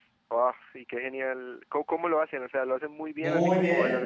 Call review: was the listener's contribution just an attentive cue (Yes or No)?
No